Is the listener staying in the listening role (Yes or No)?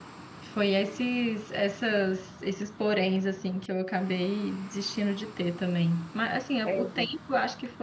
Yes